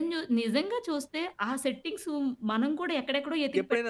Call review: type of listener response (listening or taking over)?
taking over